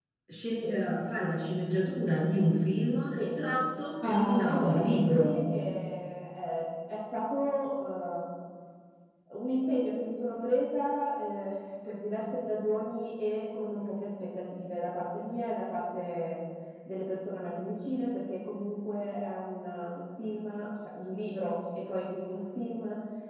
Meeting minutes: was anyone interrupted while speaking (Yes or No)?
Yes